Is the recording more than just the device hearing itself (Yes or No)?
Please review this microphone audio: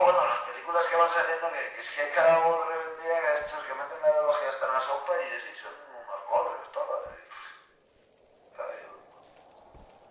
No